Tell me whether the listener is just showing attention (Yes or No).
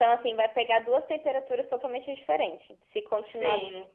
Yes